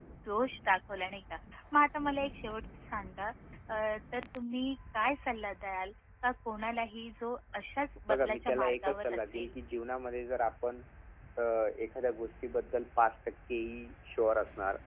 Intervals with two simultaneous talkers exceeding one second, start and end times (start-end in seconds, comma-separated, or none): 8.1-9.5